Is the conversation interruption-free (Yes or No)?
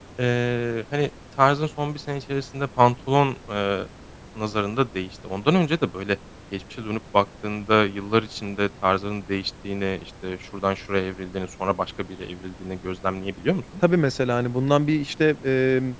Yes